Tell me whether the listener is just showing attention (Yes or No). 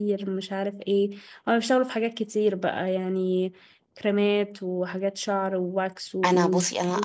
No